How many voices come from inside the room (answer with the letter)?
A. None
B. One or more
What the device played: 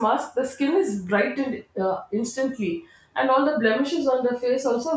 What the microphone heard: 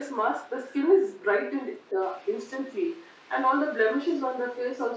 A